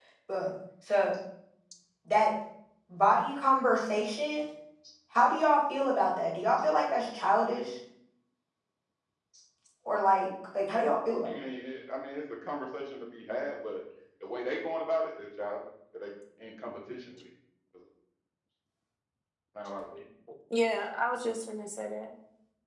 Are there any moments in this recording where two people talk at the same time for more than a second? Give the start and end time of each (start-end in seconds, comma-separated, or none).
none